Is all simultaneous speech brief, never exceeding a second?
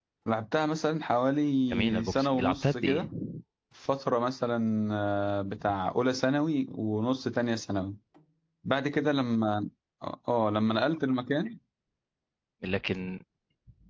No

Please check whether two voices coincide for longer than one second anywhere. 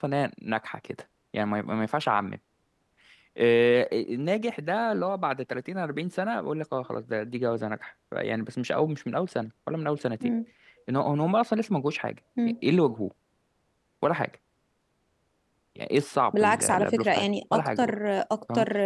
Yes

